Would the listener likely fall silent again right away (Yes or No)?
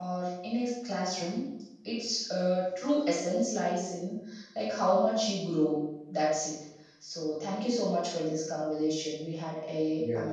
Yes